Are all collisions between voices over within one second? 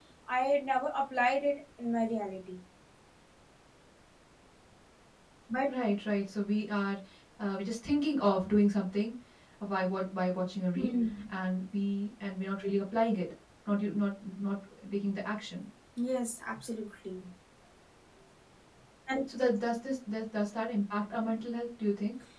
Yes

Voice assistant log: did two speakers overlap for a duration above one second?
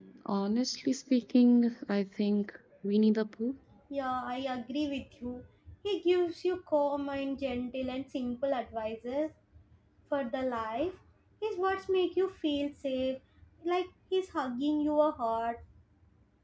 No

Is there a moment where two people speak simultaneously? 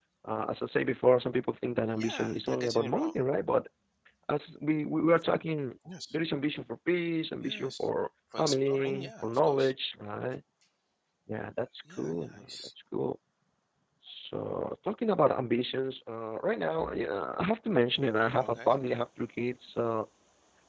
Yes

